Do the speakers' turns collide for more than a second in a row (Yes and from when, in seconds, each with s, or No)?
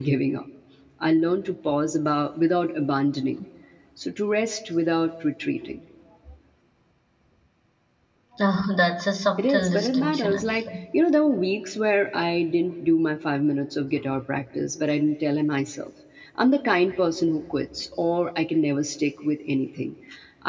Yes, from 9.4 s